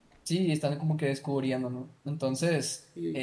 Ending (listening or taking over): listening